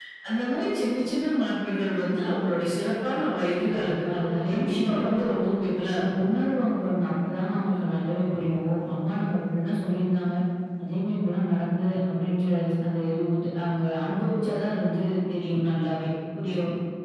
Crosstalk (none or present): present